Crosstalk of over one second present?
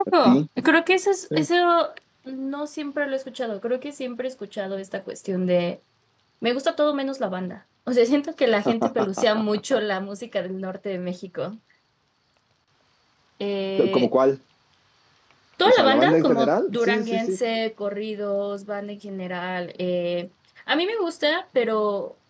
Yes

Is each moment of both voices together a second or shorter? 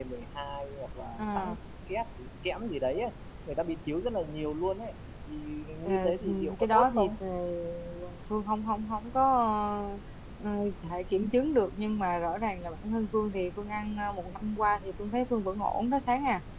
No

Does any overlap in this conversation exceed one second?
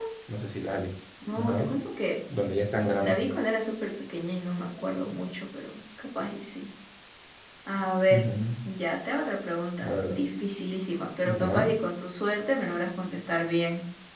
No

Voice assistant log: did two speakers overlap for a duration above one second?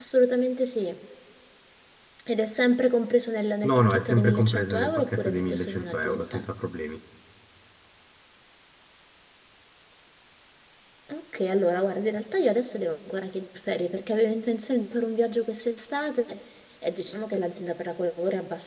Yes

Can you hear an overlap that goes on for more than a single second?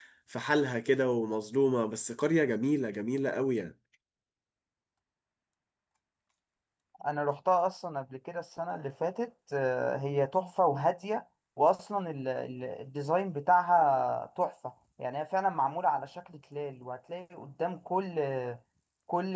No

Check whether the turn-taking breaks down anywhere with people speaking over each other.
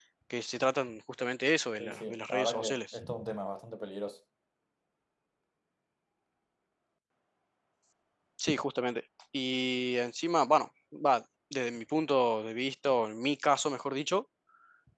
Yes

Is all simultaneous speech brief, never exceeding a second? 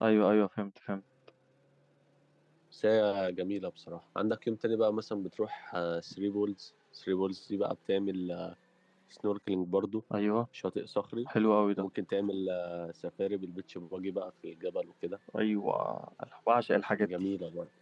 Yes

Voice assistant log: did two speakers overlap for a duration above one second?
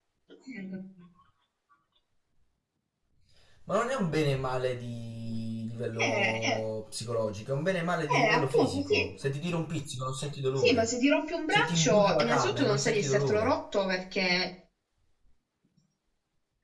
Yes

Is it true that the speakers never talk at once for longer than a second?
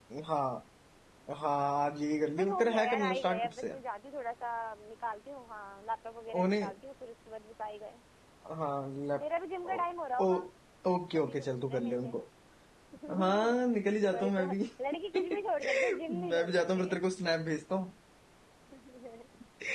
No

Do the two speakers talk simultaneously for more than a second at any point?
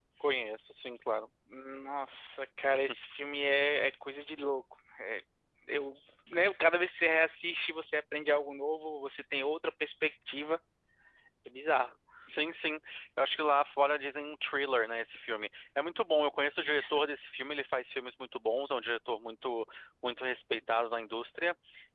No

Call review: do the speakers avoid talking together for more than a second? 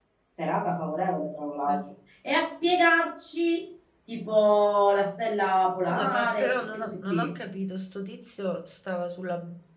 No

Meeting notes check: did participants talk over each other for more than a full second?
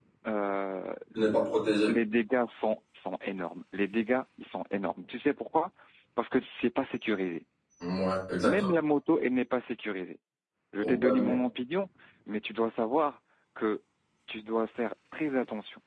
No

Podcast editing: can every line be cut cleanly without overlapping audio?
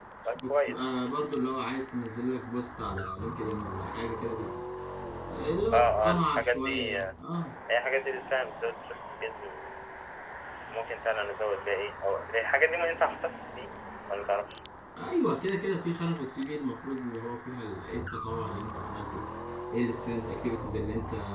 No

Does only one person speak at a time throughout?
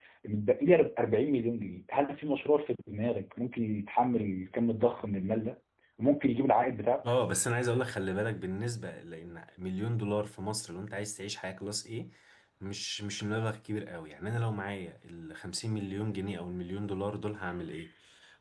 Yes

